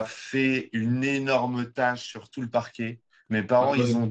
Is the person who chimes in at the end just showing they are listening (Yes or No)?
Yes